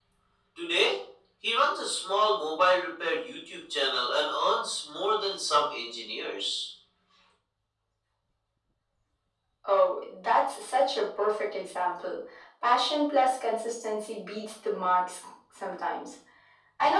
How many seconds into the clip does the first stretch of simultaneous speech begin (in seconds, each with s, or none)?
none